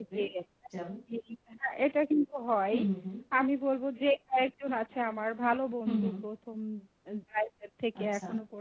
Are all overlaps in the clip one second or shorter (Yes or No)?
Yes